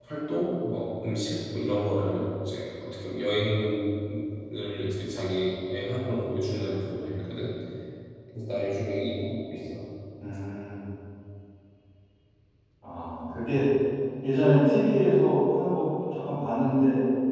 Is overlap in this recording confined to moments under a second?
Yes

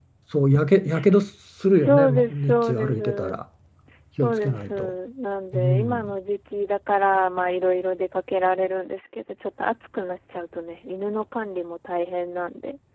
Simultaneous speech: Yes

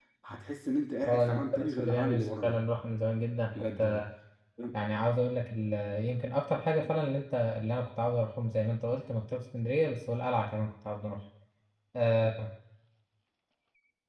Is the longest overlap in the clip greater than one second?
Yes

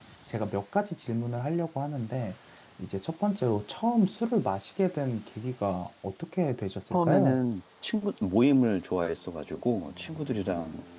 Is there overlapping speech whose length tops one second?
No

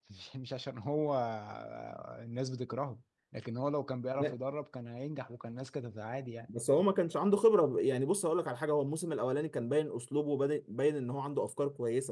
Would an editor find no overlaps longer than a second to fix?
Yes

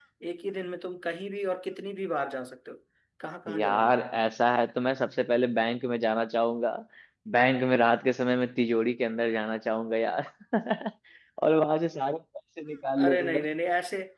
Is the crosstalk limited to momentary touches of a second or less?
Yes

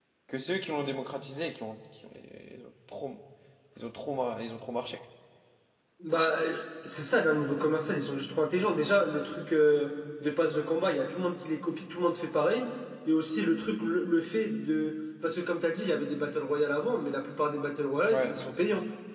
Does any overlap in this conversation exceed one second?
No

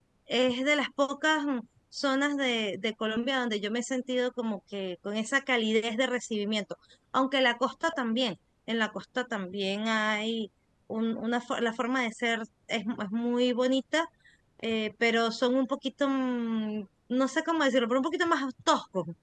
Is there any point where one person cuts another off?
No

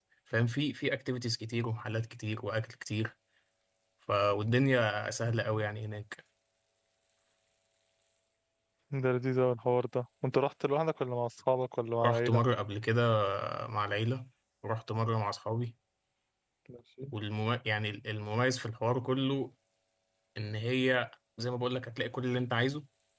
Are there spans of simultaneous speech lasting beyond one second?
No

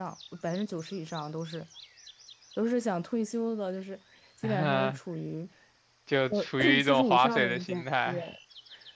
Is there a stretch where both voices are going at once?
Yes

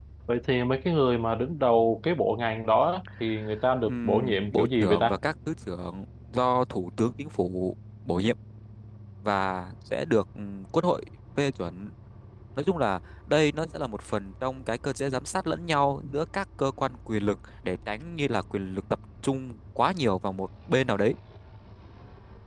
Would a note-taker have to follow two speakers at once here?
Yes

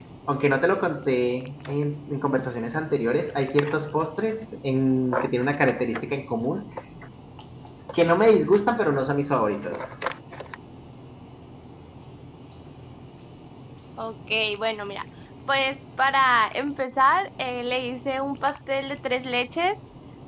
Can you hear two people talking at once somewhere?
No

